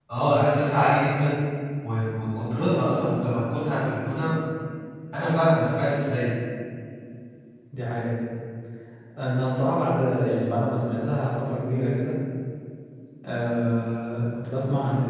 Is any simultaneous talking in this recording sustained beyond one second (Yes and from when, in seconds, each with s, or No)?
No